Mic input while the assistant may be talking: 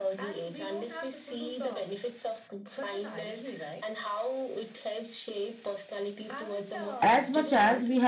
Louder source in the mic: user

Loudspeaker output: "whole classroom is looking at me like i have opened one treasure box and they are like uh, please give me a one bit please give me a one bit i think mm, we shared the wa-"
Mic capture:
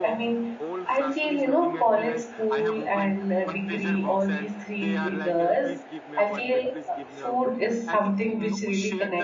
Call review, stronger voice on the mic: user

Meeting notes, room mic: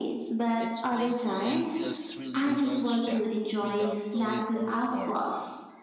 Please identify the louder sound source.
echo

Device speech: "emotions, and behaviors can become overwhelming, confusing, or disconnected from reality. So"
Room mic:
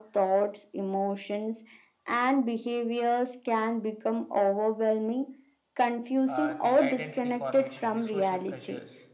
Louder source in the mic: echo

